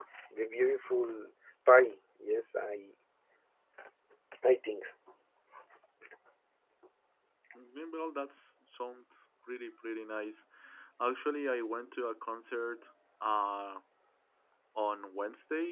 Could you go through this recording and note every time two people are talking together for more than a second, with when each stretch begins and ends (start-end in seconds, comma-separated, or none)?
none